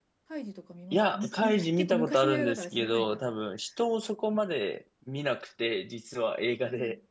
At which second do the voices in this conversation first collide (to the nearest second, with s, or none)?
1 s